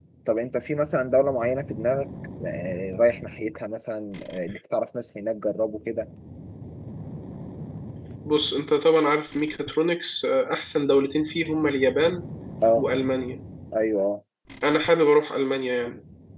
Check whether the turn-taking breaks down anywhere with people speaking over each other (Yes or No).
No